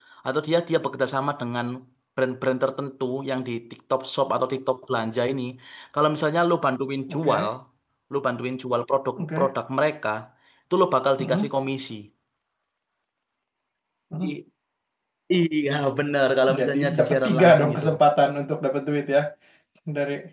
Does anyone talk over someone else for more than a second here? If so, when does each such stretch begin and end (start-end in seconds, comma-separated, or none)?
16.6-17.9